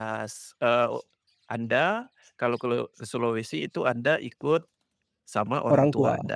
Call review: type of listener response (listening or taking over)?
listening